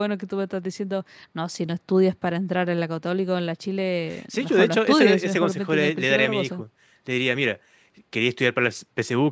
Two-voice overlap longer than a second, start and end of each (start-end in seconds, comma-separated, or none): 4.3-6.6